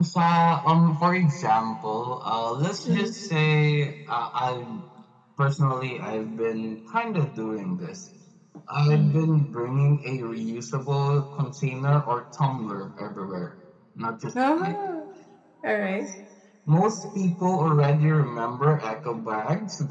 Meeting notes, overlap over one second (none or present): none